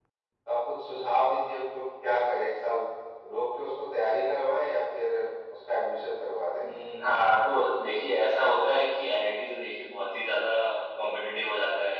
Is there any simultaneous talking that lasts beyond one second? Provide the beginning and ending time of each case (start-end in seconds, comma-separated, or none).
none